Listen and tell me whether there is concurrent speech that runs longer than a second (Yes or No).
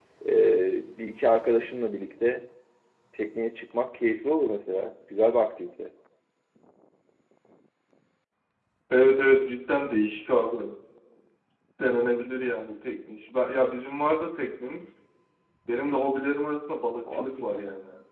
No